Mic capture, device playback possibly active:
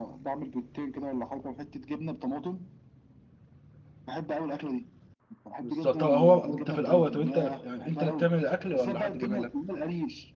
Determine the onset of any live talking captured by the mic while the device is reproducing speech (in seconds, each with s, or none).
5.6 s